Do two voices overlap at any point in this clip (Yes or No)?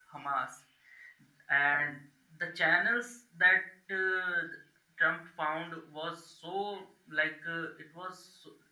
No